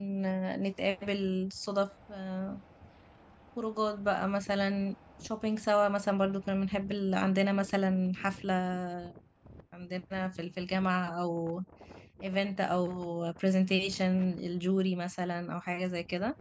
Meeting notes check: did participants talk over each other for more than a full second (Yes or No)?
No